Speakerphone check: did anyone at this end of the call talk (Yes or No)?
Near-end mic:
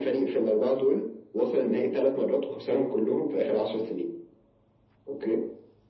No